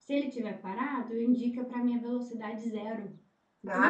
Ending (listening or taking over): taking over